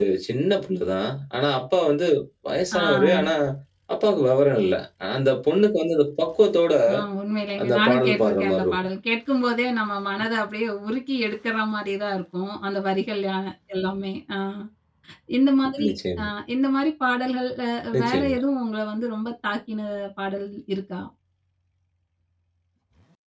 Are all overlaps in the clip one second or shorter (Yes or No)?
No